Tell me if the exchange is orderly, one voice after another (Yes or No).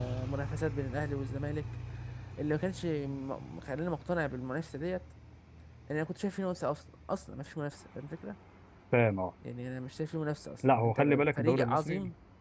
No